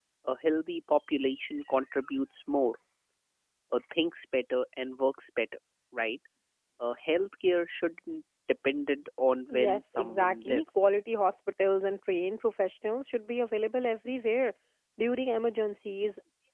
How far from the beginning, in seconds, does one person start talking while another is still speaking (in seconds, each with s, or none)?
9.5 s